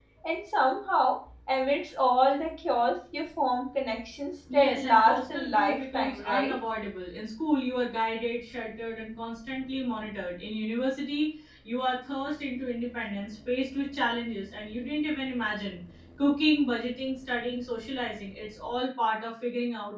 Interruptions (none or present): present